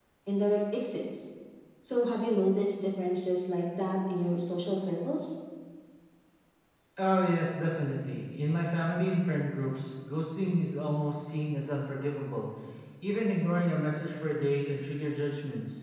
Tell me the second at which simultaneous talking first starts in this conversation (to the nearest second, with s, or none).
none